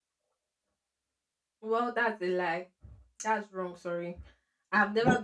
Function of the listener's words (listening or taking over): taking over